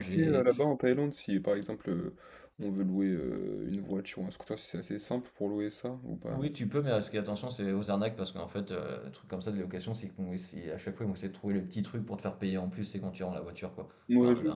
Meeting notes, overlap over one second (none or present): none